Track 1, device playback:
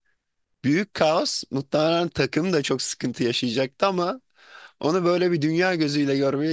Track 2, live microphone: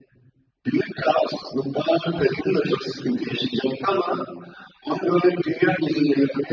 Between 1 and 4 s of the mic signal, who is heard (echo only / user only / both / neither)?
echo only